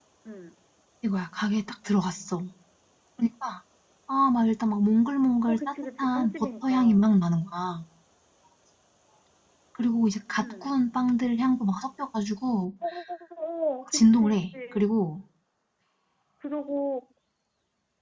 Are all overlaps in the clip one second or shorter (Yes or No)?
No